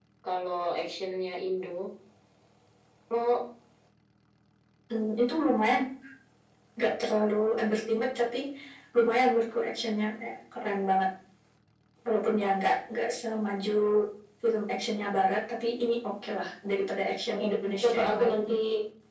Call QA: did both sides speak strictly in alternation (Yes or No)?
No